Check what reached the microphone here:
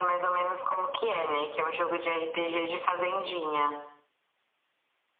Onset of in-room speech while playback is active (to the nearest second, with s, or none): none